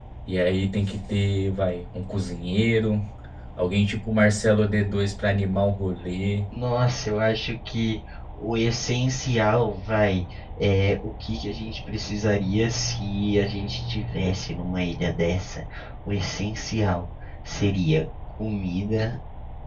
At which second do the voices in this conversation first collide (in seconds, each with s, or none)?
none